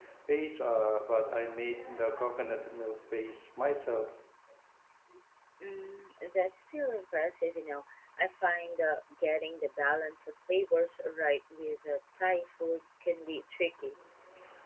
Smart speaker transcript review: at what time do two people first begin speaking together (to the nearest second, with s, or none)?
none